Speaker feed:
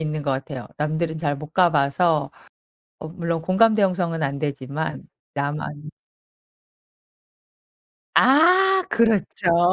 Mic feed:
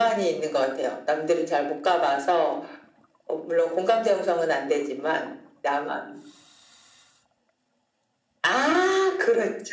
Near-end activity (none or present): none